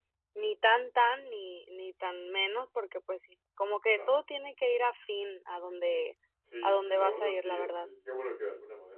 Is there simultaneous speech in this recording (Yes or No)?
Yes